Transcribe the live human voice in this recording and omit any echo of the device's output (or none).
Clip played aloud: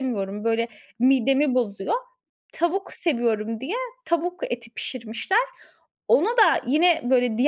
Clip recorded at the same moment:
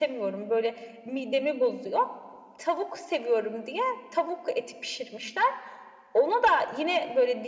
none